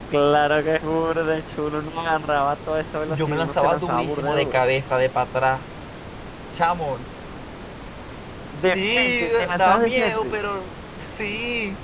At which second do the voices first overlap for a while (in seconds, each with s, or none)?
3.1 s